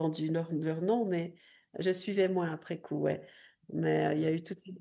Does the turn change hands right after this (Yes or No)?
No